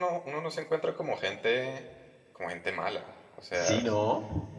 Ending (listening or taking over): taking over